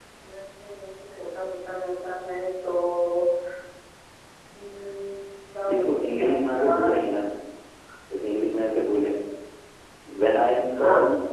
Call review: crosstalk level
present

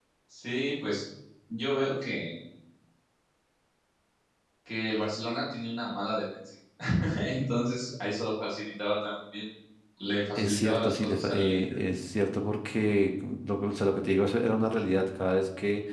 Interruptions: present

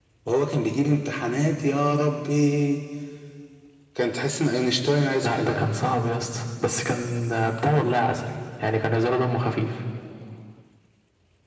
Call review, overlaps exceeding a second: none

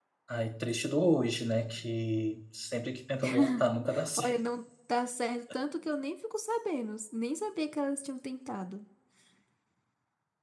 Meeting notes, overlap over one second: none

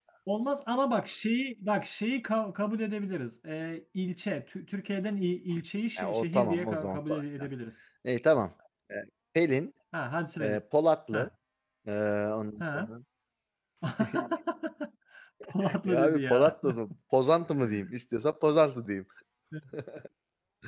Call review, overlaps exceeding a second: present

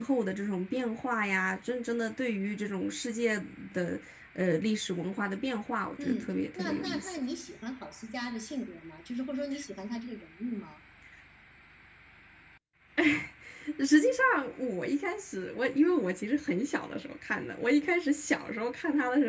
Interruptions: present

